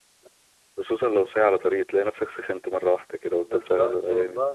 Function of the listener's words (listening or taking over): taking over